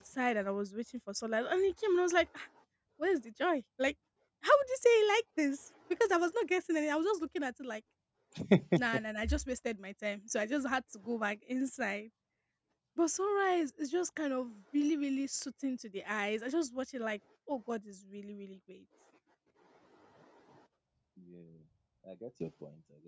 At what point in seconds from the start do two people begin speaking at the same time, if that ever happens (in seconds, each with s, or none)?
none